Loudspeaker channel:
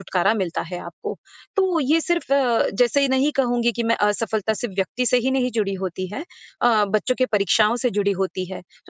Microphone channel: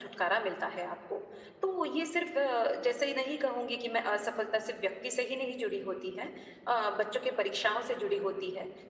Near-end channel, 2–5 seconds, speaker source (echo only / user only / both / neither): echo only